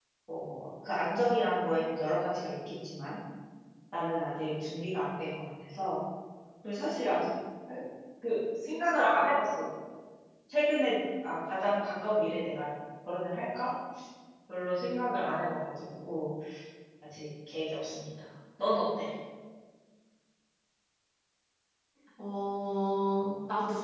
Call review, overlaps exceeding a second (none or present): none